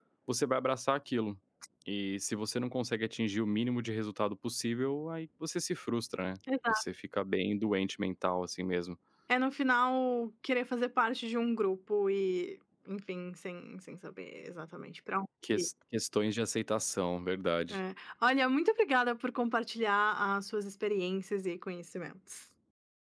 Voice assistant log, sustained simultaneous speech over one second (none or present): none